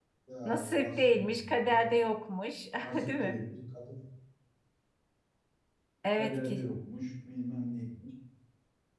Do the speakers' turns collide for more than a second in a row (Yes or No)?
Yes